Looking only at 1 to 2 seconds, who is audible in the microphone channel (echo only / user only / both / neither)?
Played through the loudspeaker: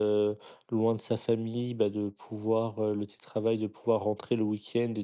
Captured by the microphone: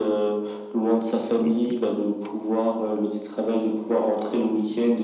both